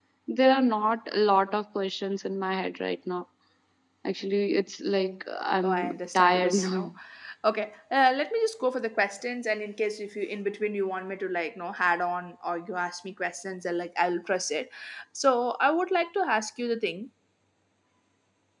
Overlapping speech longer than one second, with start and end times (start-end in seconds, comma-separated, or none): 5.6-6.9